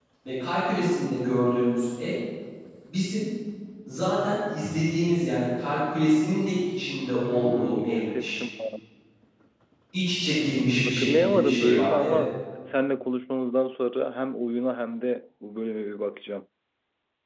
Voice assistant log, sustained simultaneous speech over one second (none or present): present